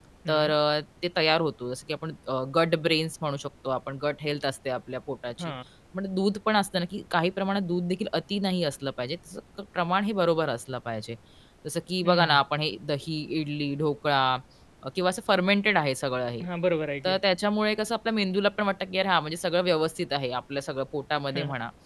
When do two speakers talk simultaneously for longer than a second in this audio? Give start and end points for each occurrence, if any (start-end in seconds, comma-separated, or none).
none